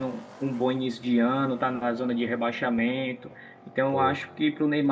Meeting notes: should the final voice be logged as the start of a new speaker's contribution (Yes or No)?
No